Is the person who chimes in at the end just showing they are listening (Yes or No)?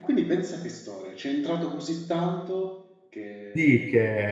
No